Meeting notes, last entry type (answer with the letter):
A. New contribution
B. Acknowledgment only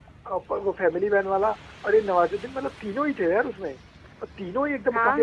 A